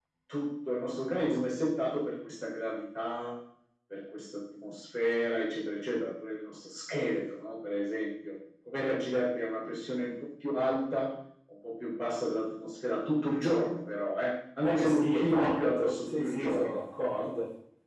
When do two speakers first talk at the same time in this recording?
14.8 s

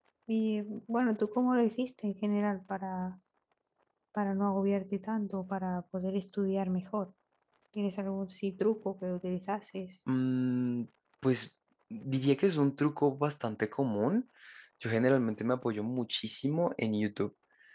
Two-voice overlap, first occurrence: none

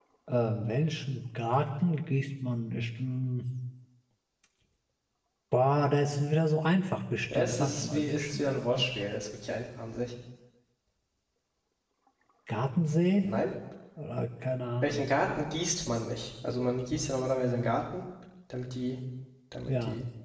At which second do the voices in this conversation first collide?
7.3 s

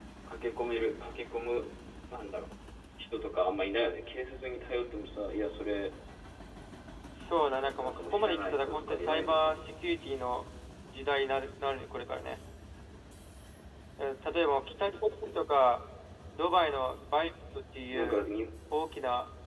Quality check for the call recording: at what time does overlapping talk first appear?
7.8 s

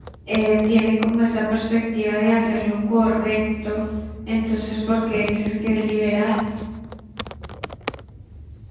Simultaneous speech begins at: none

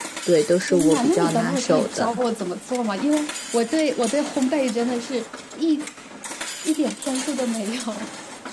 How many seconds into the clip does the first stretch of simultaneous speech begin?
0.7 s

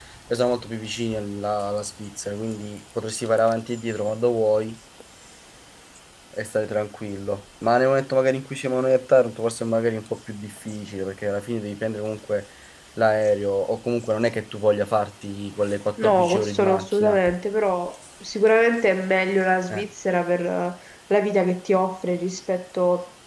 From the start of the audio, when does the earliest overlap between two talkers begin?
16.0 s

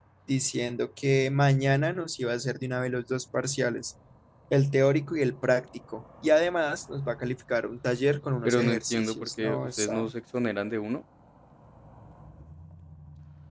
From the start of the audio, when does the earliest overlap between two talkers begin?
8.4 s

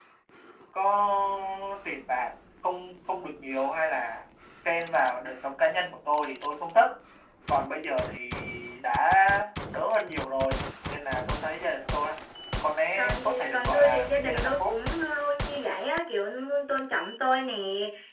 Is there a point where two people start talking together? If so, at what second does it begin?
13.0 s

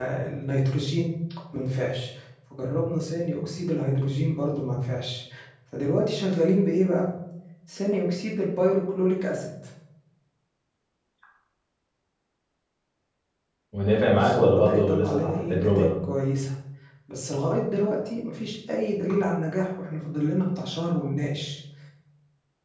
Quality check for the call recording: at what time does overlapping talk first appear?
14.1 s

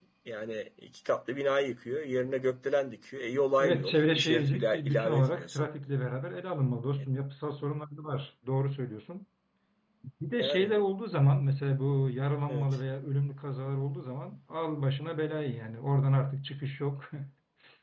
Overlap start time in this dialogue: 3.6 s

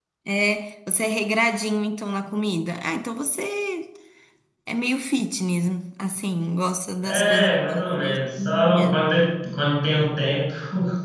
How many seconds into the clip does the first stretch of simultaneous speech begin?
7.0 s

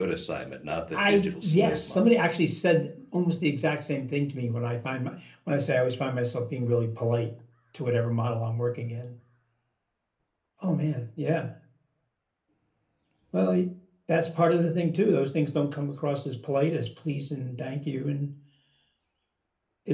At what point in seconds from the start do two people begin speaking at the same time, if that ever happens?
0.9 s

